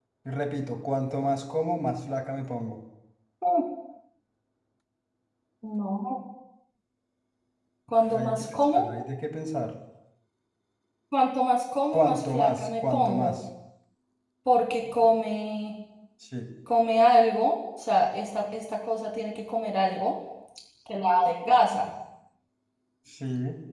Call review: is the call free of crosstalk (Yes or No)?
No